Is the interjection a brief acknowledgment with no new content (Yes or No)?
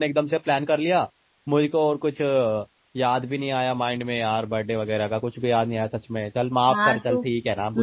No